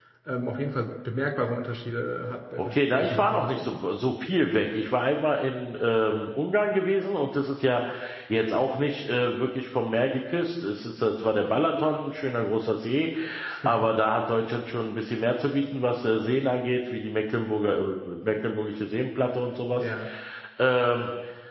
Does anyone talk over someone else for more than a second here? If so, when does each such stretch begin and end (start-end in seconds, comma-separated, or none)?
2.6-3.8